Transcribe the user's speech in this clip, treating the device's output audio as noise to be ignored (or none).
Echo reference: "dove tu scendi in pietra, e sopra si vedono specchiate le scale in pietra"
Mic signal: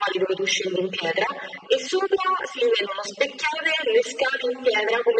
none